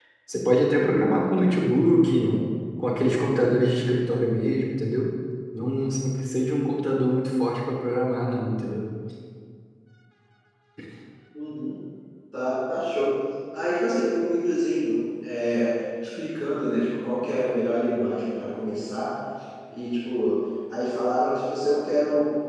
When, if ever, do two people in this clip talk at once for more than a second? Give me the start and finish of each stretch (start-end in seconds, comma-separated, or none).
none